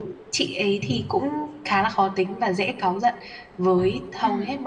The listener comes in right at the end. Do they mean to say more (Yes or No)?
No